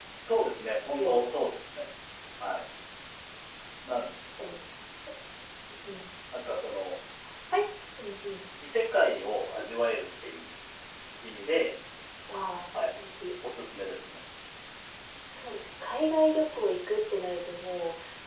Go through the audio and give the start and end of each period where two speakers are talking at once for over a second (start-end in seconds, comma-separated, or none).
none